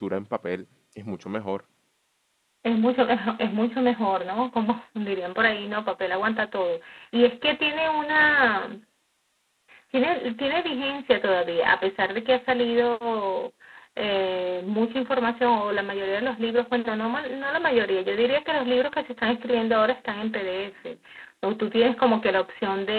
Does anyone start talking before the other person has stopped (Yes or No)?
No